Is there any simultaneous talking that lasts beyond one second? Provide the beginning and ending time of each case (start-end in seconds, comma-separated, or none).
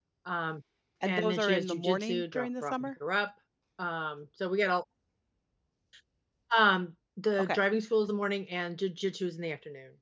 1.0-2.9